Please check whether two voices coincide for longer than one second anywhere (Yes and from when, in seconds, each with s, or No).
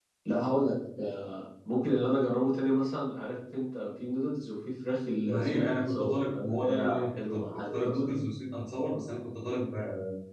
Yes, from 5.2 s